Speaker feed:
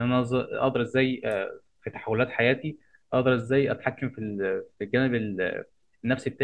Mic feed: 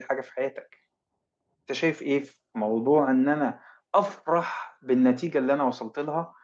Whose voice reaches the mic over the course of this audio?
user only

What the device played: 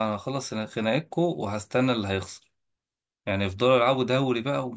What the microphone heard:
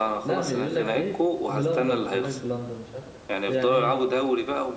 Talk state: both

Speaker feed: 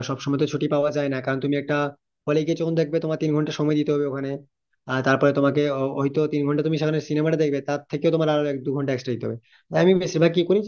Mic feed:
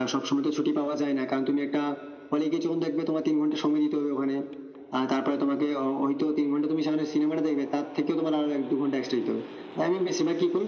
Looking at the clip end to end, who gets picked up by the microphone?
echo only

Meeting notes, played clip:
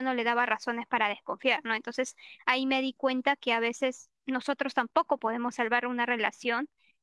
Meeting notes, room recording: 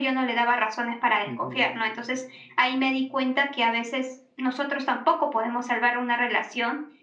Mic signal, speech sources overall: both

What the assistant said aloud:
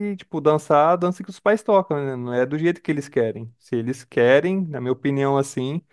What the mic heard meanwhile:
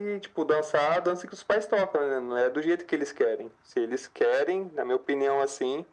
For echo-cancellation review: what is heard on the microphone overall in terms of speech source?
echo only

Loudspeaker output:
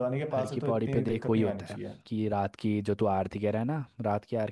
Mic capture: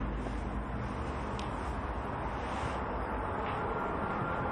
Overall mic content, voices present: neither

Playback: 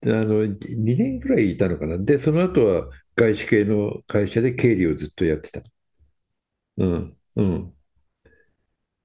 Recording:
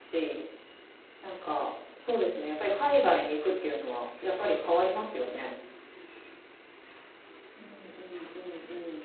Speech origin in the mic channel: user only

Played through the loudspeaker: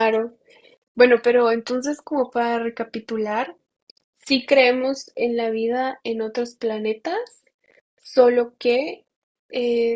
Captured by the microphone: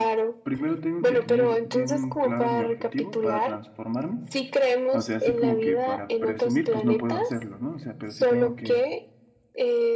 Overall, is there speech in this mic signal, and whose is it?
both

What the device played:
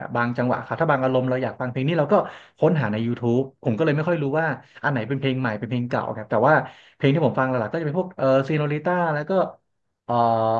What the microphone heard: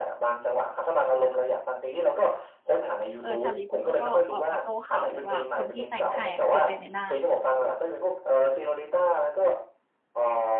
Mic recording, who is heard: both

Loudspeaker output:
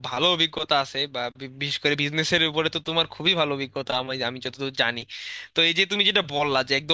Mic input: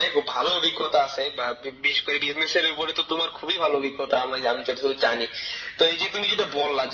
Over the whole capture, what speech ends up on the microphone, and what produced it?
echo only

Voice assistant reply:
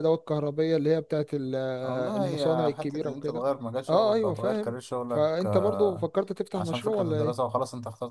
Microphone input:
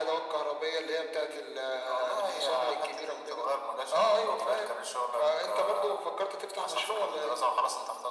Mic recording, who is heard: echo only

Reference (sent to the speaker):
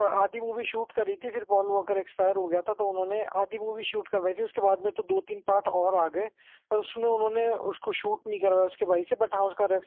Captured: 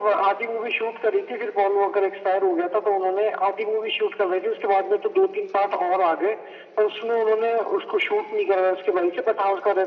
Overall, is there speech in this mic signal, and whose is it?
echo only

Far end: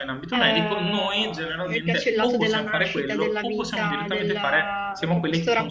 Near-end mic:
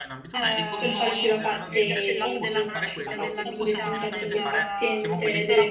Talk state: both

